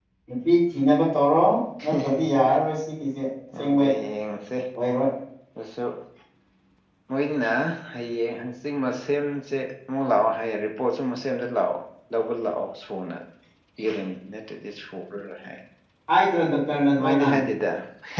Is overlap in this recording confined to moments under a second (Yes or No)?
Yes